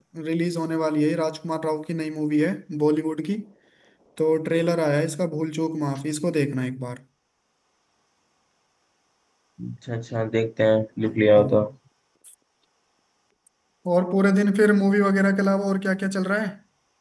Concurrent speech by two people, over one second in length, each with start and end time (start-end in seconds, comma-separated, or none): none